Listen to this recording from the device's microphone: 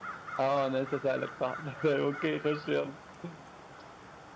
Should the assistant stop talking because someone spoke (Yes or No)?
Yes